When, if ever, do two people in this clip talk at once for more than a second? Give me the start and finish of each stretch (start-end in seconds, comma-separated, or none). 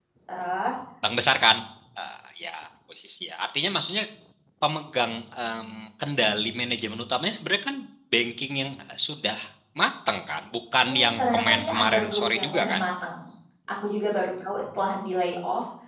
10.8-12.8